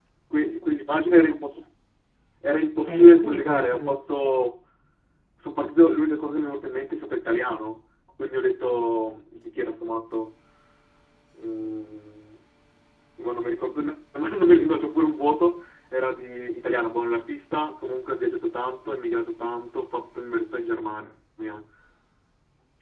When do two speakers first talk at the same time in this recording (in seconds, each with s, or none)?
2.9 s